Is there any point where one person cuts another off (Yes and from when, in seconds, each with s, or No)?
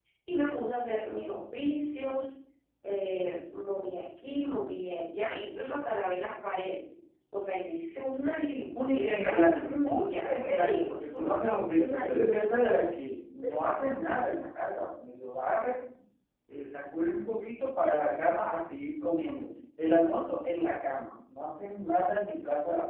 Yes, from 8.9 s